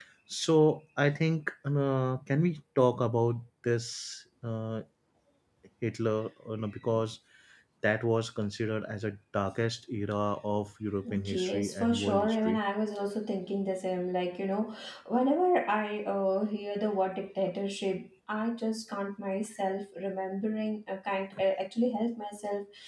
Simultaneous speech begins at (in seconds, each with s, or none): 11.1 s